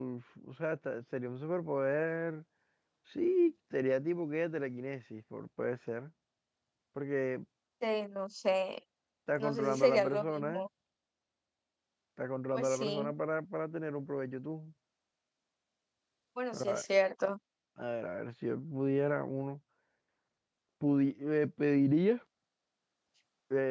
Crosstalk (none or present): present